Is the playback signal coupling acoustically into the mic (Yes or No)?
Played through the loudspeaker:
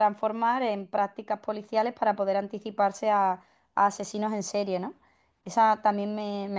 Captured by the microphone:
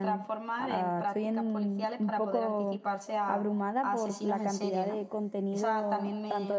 Yes